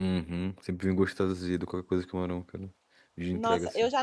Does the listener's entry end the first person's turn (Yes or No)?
Yes